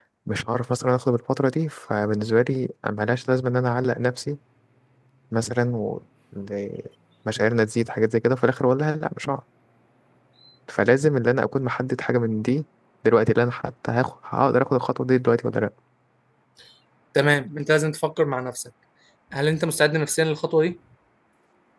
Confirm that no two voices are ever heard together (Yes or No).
Yes